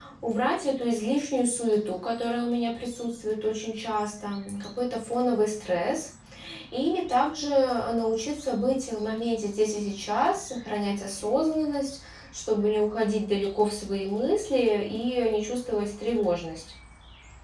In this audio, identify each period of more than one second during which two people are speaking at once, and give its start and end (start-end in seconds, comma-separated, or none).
none